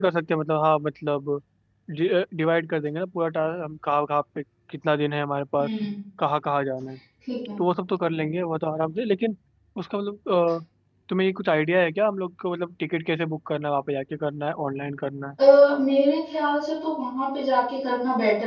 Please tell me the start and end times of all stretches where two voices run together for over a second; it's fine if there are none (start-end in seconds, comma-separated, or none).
none